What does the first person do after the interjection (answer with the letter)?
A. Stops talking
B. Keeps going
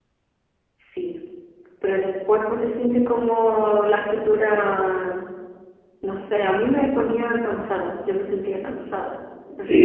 A